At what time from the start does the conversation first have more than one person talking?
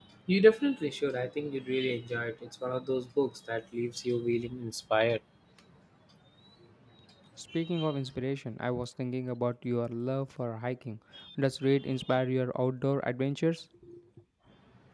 none

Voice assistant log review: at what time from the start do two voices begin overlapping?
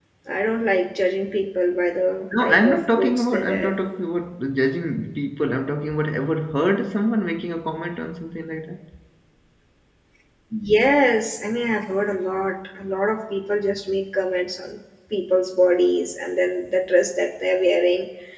2.3 s

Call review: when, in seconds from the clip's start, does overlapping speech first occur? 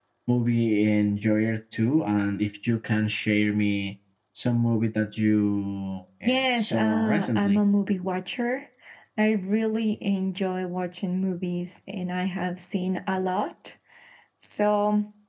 6.2 s

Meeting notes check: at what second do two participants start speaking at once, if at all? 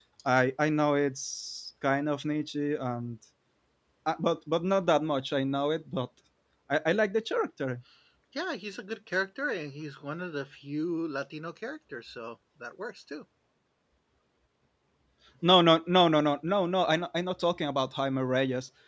none

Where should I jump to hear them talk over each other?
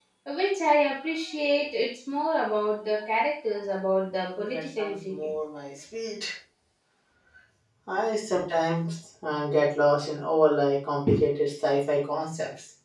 4.0 s

